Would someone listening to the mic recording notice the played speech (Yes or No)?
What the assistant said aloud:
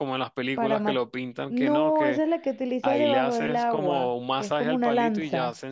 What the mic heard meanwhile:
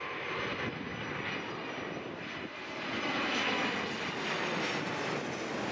No